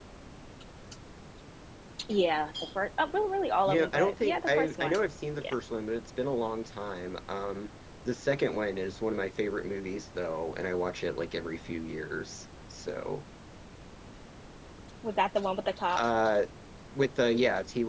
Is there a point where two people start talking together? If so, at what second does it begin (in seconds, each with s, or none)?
3.7 s